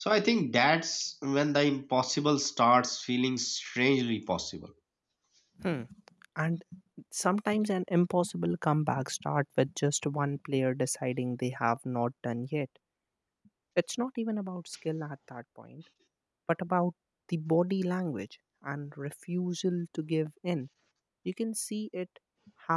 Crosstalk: none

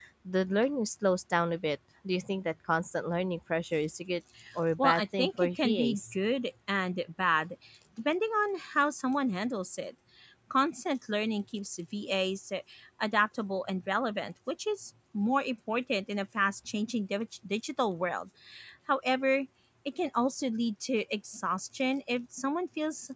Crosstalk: present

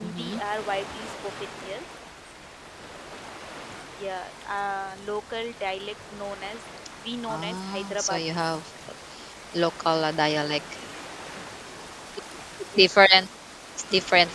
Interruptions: present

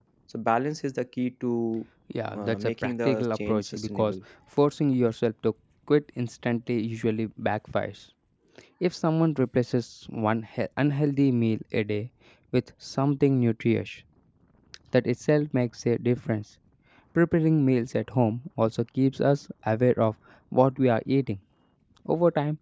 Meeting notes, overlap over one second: present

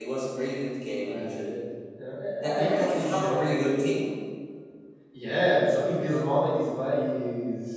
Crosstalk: present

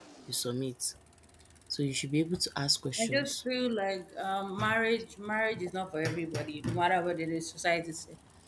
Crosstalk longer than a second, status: none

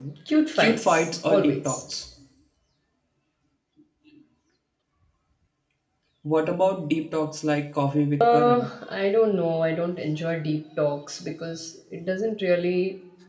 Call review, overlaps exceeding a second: present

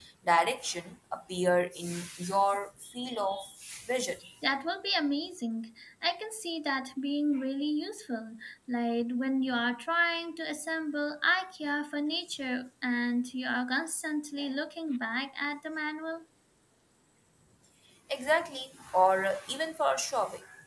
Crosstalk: none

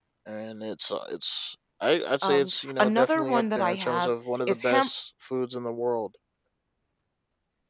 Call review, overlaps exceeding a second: present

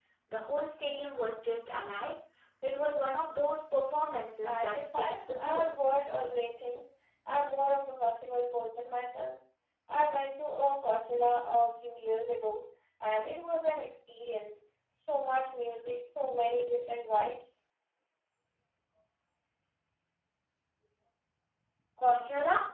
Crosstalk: present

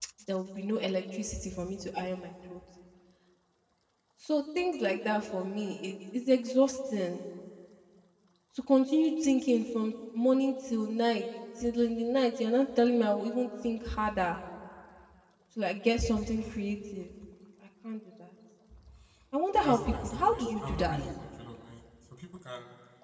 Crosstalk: present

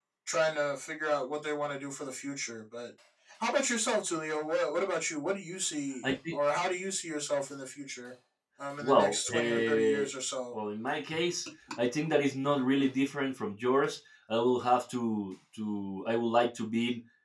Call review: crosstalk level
present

